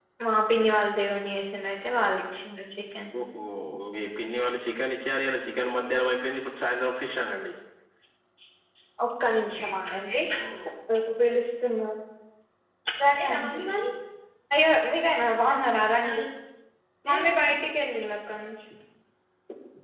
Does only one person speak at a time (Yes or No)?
Yes